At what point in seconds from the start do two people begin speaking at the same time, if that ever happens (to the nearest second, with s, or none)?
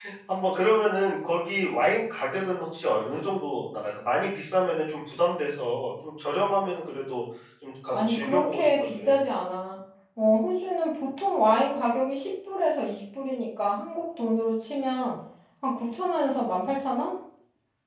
8 s